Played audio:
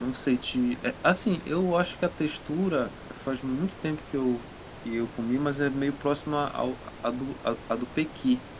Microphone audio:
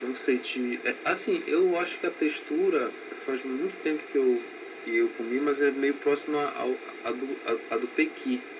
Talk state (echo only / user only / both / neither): echo only